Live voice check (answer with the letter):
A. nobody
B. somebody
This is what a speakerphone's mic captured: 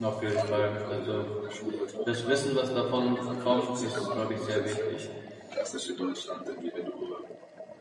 B